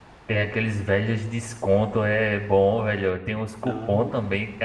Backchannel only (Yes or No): Yes